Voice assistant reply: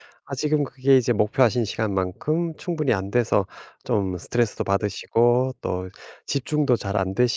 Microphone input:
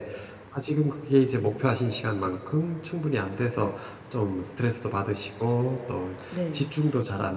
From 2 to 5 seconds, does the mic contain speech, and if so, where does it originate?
echo only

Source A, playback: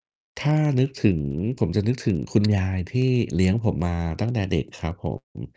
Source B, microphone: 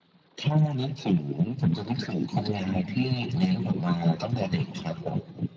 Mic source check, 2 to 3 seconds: echo only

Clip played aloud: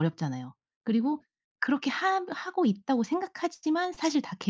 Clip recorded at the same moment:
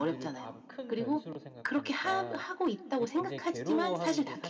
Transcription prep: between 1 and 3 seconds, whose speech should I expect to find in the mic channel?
both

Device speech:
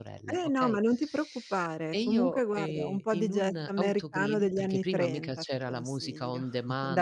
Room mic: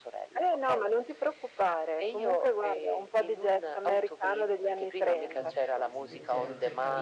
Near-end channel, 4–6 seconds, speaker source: both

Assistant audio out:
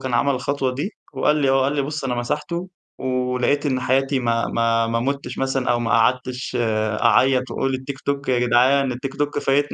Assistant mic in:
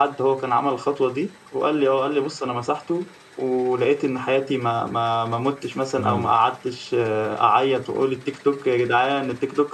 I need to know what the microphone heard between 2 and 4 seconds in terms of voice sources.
echo only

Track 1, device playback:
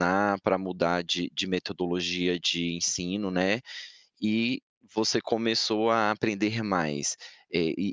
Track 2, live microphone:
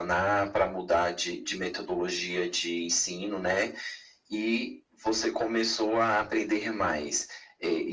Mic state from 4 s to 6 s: echo only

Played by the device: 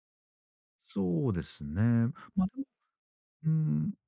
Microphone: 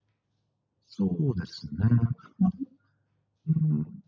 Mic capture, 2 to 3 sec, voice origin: echo only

